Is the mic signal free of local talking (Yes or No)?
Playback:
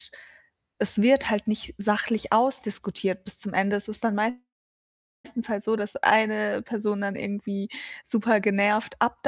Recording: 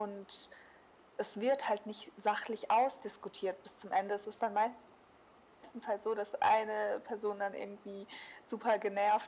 Yes